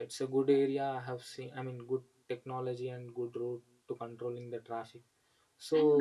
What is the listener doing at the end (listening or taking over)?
taking over